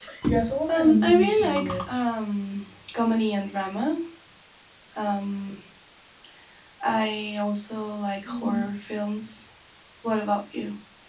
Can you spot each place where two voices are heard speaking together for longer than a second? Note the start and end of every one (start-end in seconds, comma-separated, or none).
0.7-2.0